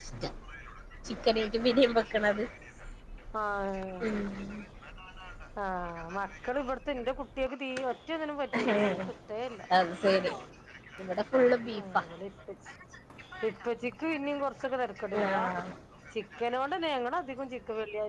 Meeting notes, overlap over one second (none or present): none